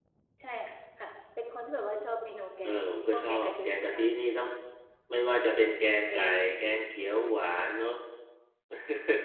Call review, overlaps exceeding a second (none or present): present